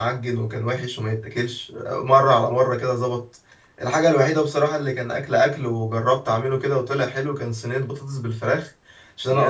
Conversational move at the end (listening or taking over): listening